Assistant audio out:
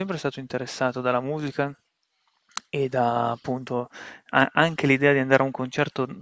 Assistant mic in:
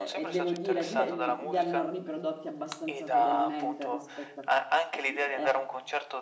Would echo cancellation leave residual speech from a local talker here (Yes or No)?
Yes